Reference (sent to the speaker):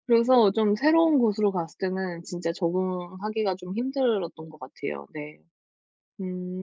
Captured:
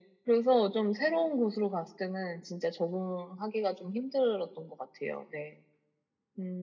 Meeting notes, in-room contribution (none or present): none